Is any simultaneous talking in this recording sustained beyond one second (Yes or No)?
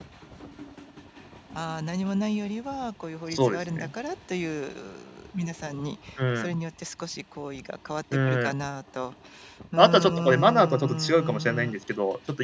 Yes